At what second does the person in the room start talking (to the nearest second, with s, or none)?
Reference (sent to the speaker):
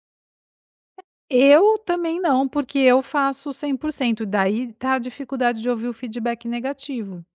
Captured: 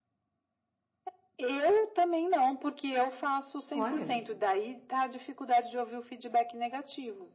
4 s